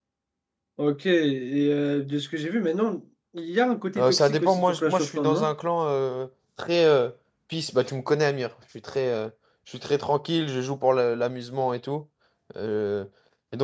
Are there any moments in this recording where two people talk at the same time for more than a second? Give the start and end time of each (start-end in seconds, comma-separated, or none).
4.0-5.5